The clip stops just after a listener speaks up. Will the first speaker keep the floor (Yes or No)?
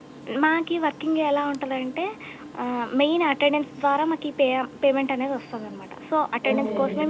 Yes